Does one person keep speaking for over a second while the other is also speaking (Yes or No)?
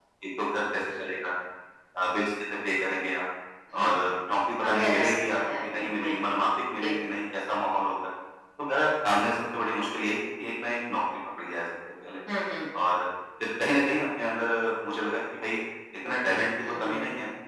Yes